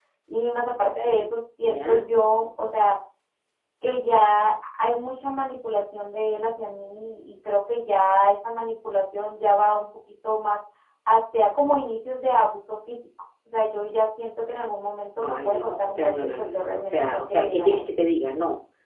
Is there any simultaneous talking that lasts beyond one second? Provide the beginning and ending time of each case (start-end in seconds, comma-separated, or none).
15.2-17.8